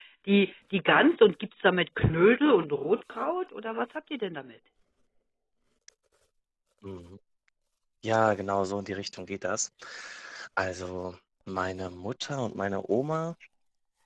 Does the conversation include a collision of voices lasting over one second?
No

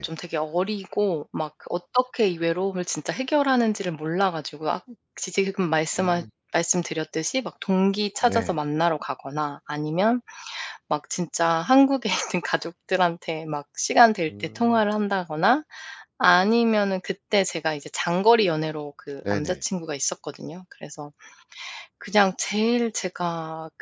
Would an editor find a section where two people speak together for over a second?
No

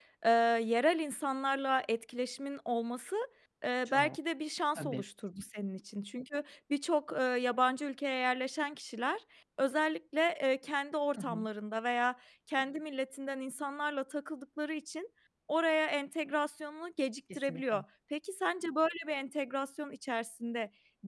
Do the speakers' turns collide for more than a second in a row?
No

